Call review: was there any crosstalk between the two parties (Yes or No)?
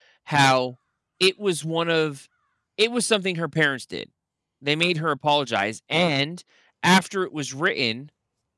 No